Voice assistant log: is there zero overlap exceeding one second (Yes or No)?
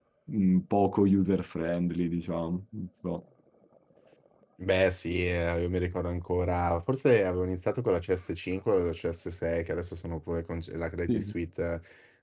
Yes